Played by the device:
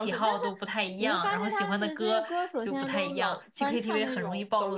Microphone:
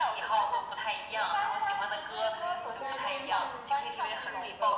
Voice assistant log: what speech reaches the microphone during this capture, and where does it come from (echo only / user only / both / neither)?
both